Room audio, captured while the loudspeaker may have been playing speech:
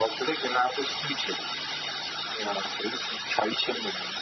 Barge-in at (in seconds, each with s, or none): none